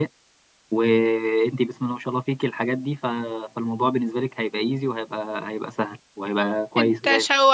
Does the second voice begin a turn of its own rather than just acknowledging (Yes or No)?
Yes